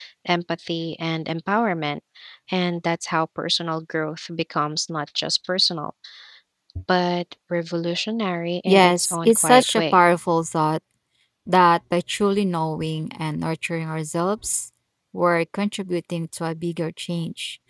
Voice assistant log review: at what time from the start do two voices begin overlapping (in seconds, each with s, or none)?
8.7 s